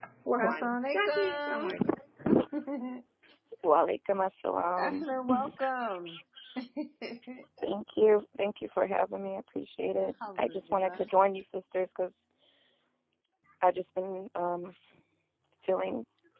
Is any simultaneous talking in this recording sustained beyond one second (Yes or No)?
Yes